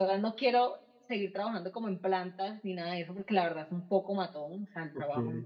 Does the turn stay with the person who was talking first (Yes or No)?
Yes